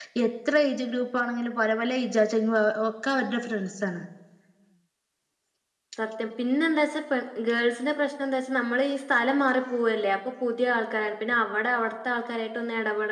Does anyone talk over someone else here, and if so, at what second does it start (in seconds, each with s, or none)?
none